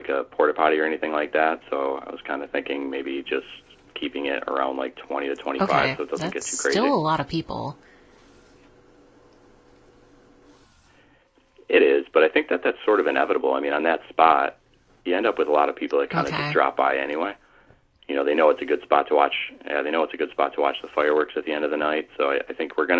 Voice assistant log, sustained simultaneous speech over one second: present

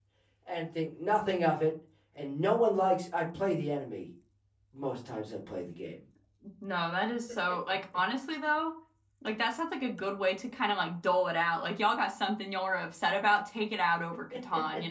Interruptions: none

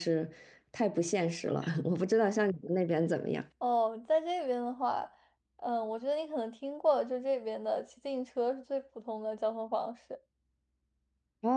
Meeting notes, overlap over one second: none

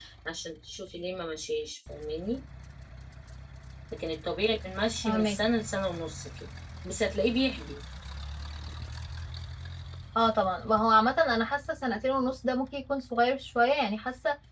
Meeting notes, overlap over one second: none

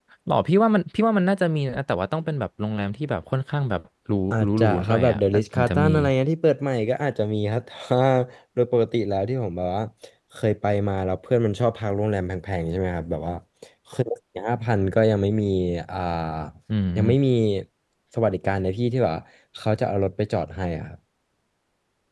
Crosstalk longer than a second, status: present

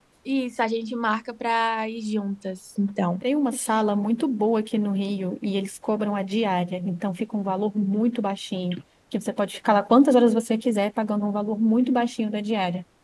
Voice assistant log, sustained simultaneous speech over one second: none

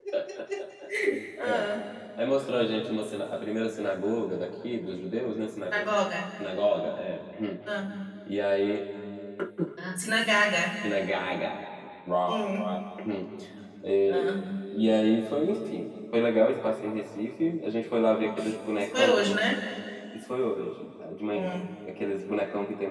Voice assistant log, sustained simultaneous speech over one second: present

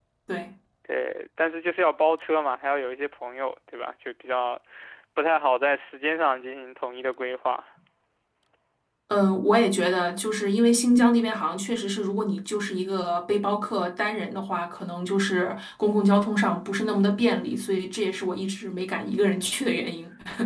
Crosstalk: none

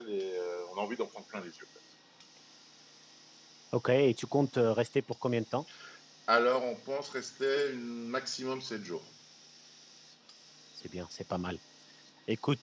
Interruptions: none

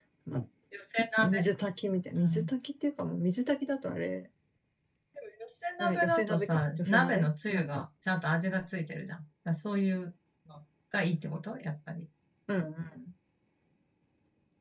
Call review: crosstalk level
present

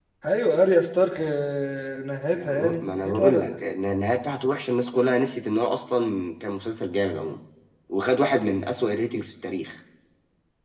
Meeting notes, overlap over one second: present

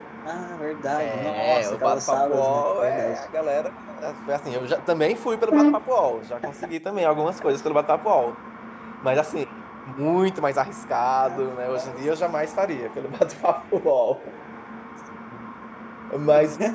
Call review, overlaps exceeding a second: present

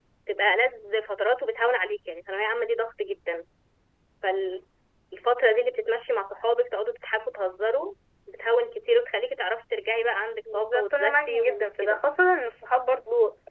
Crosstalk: present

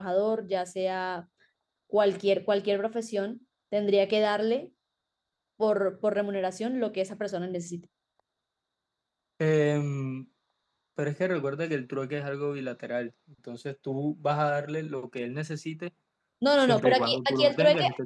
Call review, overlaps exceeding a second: present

